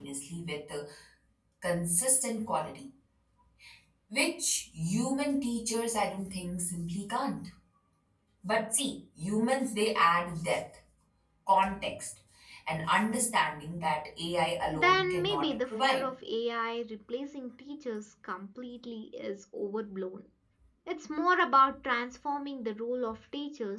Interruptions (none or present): present